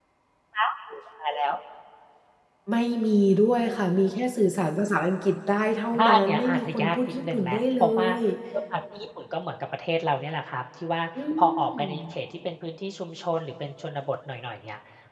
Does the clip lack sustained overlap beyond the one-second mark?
No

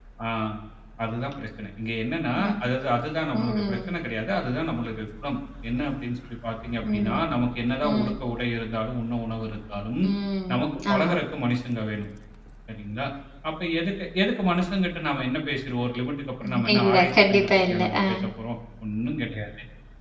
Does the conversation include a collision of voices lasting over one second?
Yes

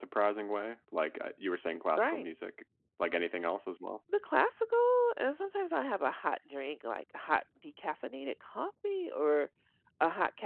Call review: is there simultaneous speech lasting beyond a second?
No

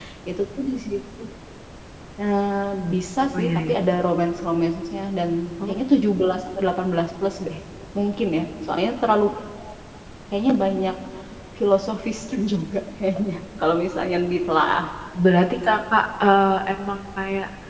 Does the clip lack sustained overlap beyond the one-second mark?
Yes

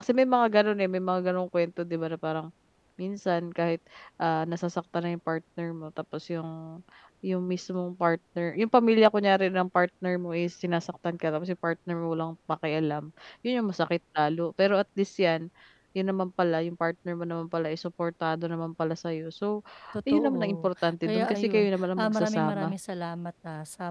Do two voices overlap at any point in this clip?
Yes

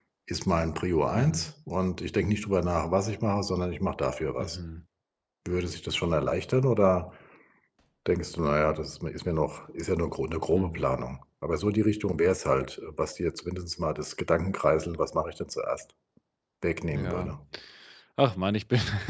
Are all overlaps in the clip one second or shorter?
Yes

